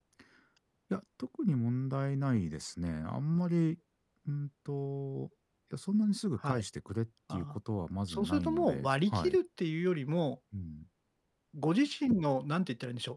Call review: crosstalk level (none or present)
present